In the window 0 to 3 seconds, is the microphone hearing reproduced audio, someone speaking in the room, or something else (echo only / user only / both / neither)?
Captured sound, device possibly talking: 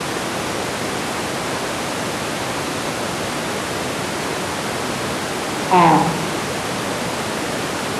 neither